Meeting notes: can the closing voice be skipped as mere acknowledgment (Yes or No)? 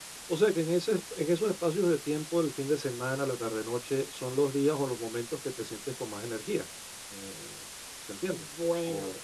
No